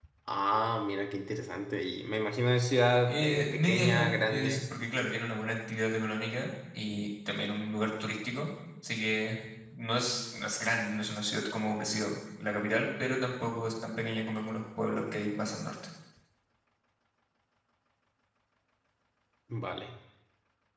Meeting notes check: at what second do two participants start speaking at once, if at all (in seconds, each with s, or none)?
3.1 s